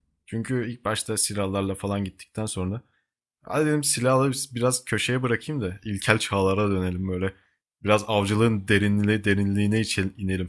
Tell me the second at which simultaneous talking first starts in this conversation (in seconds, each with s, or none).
none